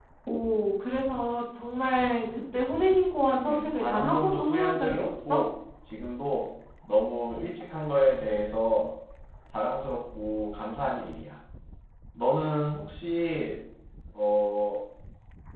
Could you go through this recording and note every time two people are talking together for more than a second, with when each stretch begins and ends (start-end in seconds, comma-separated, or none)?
3.4-5.4